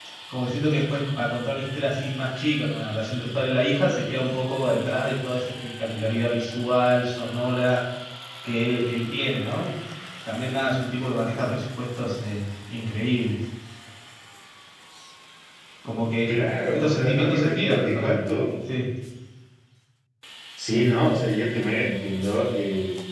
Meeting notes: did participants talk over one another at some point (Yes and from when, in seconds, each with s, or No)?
Yes, from 16.7 s